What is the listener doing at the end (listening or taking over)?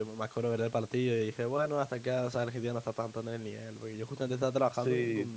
listening